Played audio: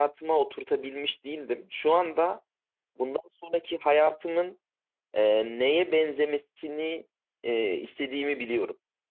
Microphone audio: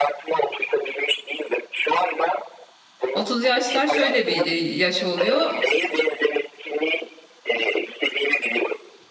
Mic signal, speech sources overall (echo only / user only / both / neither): both